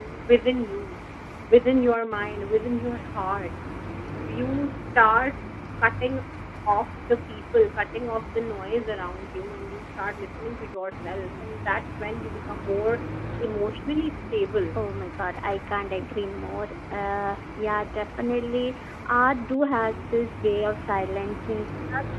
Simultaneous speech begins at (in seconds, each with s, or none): none